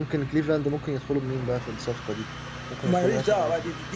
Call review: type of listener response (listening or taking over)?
taking over